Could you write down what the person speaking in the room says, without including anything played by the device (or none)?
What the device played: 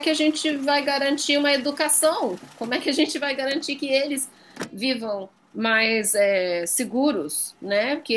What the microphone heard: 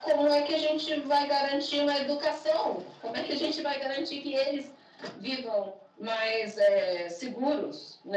none